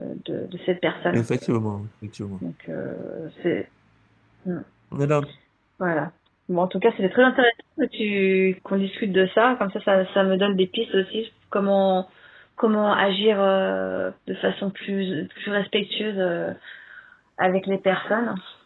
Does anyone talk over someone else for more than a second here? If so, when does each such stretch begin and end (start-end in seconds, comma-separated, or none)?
none